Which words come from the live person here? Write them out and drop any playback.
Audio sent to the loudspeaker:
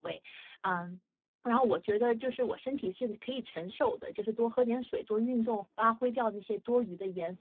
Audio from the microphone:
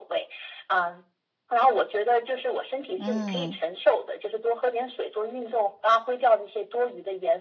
嗯，

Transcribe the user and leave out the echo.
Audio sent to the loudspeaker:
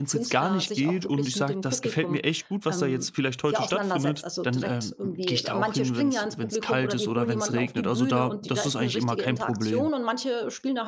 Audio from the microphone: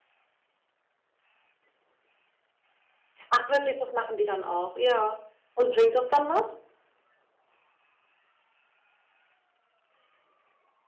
Ach wirklich, das machen die dann auch? Ja. Und bringt das dann was?

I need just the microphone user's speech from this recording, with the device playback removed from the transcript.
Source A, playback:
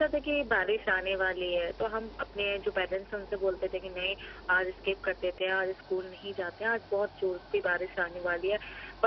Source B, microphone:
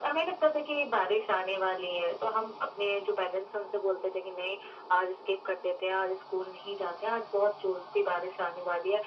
none

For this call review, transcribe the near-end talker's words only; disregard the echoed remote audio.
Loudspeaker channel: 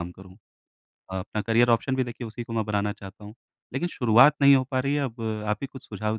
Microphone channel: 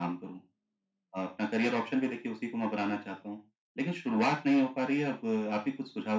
none

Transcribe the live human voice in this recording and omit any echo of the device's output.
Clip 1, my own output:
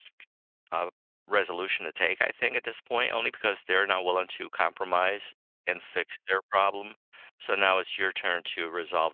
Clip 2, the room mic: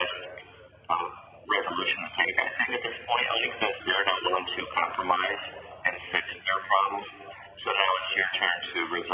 none

